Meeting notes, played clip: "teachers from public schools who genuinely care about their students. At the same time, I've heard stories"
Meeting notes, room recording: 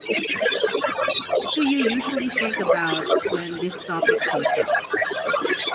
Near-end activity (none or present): present